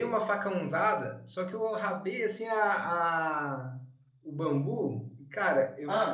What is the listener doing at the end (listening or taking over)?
listening